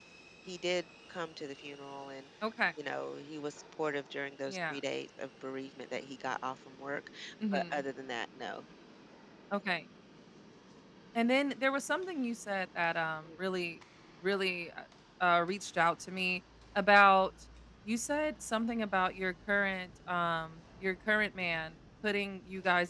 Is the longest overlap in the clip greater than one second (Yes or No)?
No